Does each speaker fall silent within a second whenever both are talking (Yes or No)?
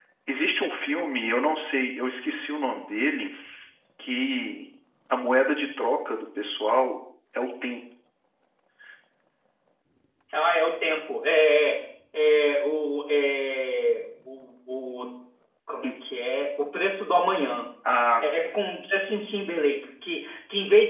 Yes